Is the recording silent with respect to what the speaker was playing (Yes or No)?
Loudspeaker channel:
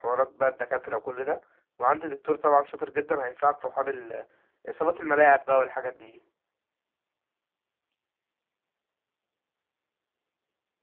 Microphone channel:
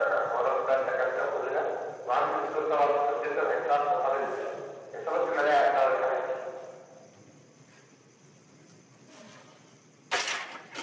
No